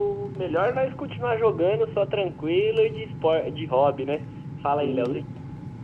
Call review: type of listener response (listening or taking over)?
taking over